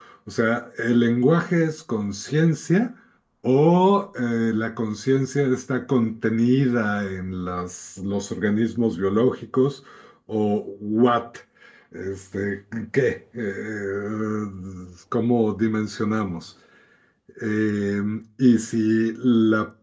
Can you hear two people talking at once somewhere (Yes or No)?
No